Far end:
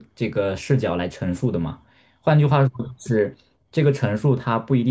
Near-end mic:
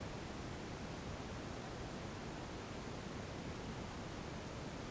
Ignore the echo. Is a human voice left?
No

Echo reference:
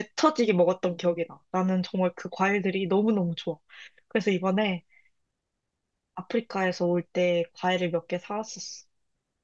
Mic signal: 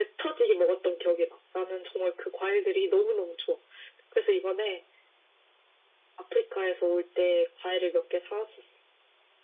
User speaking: No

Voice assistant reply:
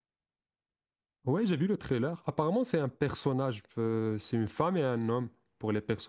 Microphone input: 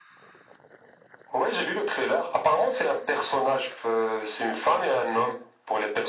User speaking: No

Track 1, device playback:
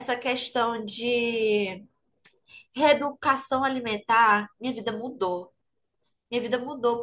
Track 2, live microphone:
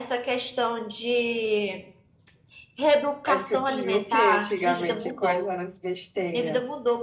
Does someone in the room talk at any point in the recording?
Yes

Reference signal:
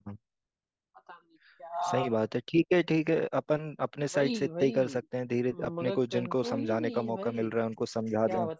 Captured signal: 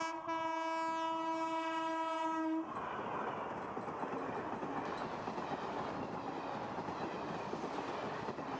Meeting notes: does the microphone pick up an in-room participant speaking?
No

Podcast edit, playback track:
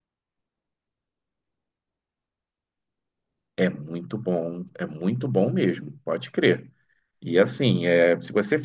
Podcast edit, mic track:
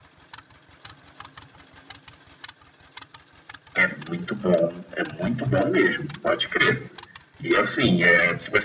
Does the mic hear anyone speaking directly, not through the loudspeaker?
No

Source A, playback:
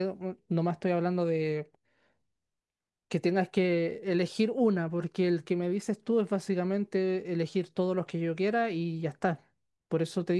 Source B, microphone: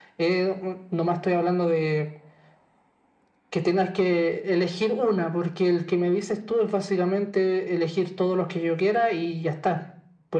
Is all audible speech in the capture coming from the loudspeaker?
Yes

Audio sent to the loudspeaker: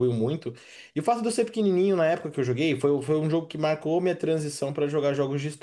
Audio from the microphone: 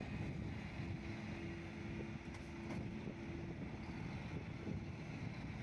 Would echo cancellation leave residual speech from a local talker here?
No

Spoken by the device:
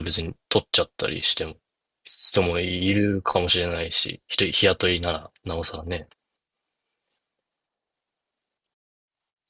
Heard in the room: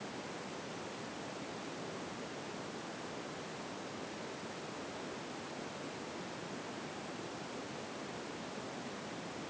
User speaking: No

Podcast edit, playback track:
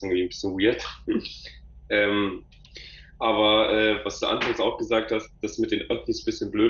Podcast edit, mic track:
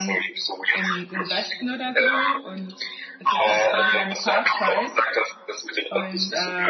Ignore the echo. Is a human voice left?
Yes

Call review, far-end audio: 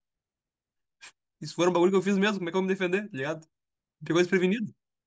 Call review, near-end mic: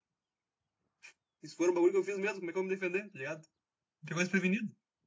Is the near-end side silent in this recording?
Yes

